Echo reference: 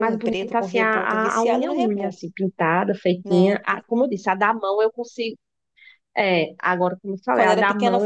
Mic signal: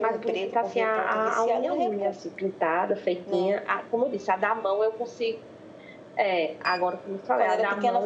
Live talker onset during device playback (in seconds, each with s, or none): none